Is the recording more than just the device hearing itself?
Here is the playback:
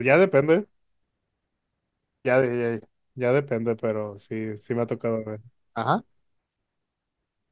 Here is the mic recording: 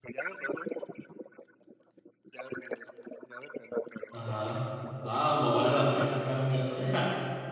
Yes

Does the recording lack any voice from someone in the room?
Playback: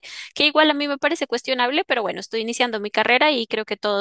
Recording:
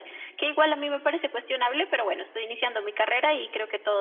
Yes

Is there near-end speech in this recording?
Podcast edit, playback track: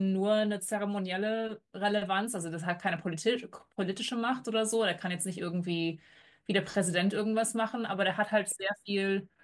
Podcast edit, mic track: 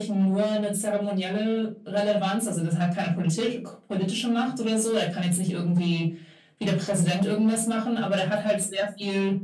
No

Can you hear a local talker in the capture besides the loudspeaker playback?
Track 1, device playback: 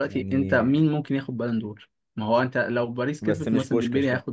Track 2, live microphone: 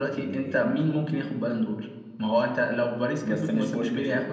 No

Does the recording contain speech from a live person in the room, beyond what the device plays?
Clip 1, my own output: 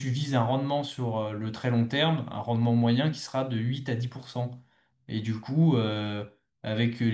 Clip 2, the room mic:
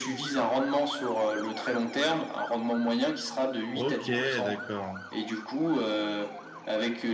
Yes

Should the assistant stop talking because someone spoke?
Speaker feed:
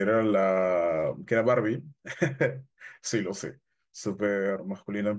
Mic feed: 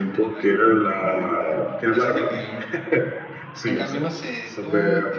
Yes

